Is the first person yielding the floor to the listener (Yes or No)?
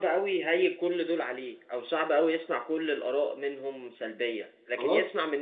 No